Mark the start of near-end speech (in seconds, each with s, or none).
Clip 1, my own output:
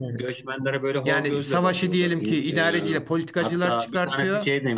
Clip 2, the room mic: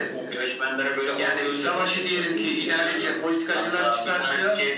none